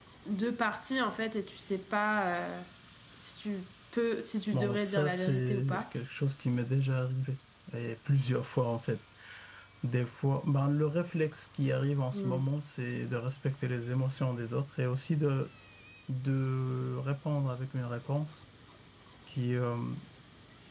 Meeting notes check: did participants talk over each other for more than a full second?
Yes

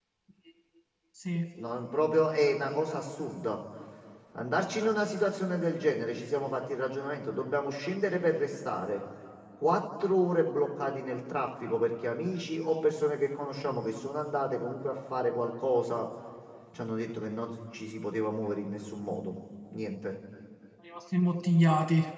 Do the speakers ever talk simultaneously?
No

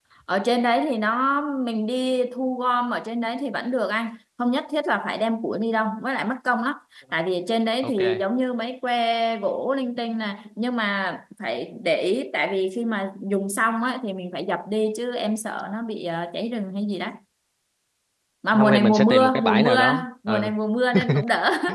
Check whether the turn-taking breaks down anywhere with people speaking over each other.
Yes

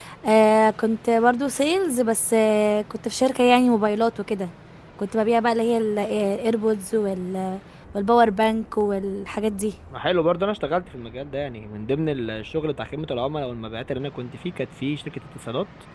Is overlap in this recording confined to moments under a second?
Yes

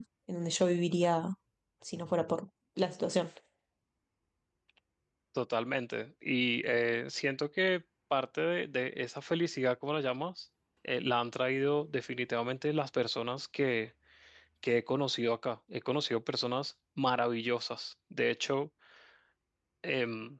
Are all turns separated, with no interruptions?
Yes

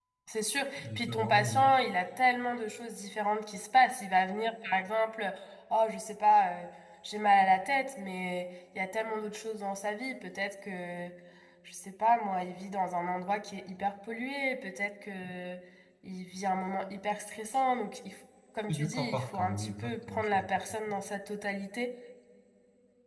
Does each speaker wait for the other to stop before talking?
No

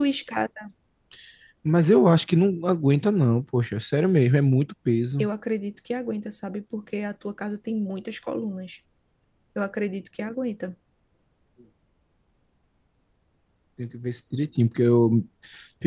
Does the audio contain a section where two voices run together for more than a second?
No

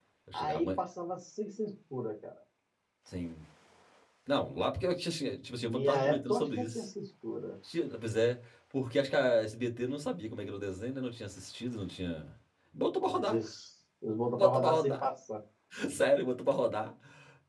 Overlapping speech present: Yes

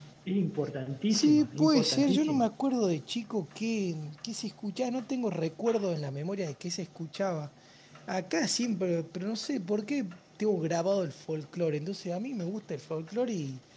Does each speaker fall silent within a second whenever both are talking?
No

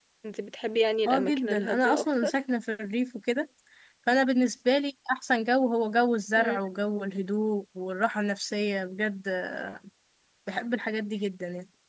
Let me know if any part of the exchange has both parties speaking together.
Yes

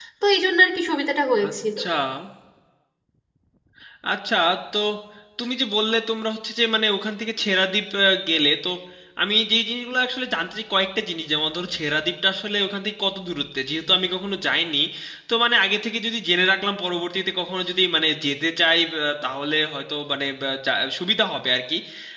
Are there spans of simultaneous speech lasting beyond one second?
No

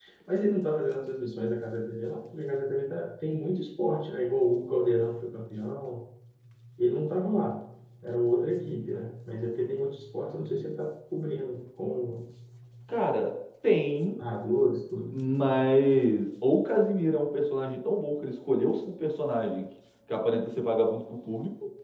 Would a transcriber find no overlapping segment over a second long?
Yes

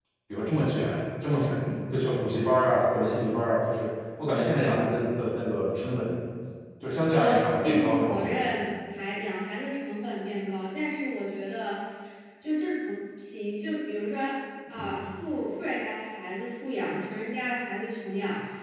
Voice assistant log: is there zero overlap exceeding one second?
No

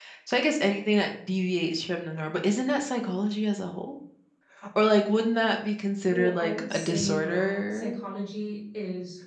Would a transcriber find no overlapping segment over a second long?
No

